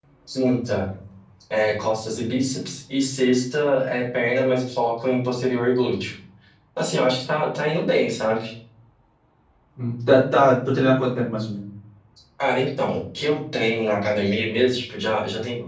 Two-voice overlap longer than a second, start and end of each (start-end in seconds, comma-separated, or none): none